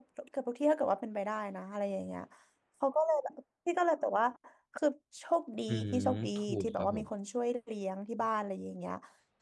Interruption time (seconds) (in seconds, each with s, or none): 5.7 s